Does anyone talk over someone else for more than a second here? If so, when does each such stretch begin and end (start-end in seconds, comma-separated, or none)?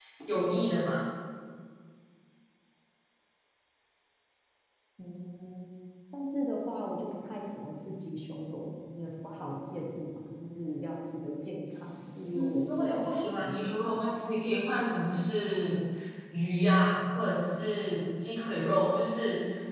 12.3-14.1